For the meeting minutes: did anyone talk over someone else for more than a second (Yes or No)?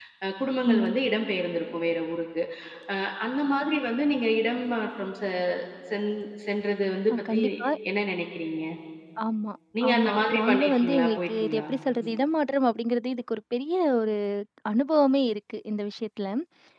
Yes